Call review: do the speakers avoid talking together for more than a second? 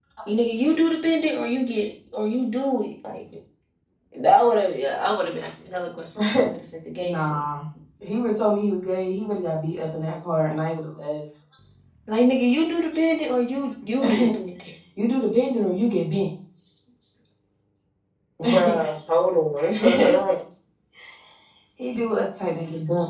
Yes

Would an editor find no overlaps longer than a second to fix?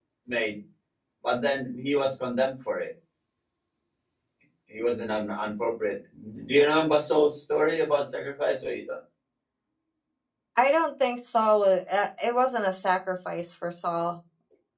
Yes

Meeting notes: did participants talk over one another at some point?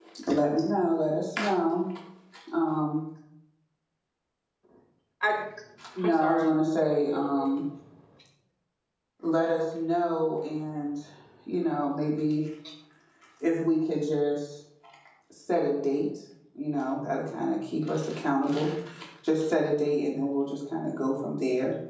Yes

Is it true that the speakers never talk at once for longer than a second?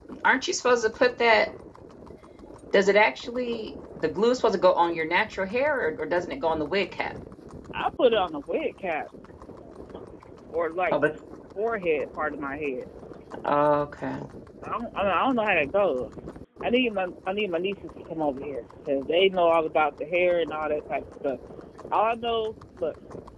Yes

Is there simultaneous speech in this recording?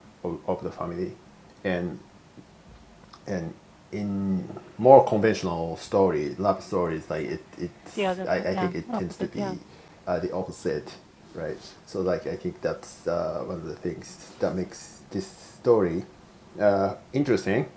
Yes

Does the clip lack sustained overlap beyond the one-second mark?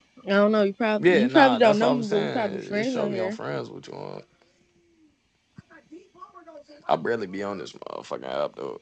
No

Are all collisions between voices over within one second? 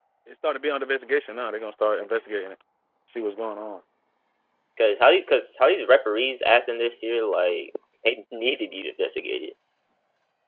Yes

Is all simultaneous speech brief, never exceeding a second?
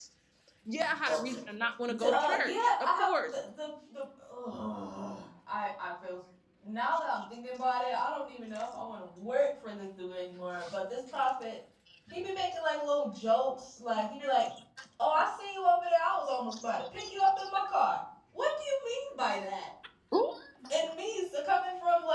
No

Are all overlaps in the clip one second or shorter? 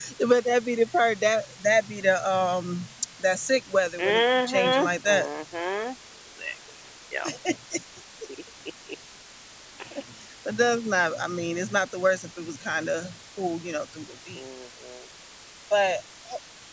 No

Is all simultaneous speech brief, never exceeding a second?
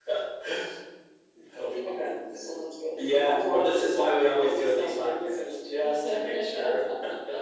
No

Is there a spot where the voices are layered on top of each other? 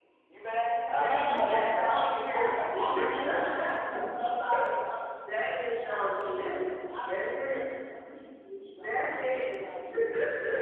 Yes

